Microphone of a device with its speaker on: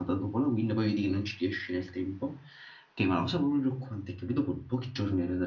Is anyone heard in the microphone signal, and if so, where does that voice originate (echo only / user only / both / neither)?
user only